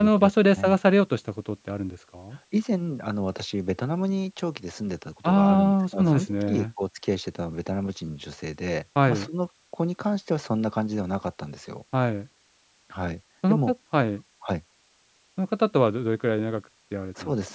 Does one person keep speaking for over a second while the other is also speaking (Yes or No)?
Yes